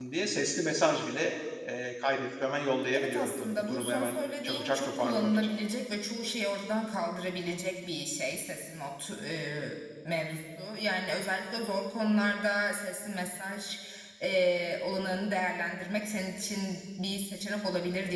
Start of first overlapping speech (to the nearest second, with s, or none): 3 s